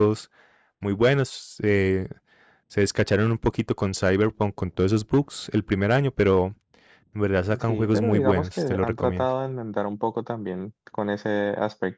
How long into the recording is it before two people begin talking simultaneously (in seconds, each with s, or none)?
7.7 s